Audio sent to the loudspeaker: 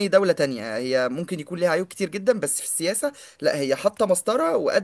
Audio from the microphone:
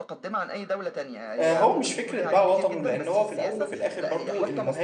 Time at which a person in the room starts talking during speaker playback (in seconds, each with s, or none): 1.4 s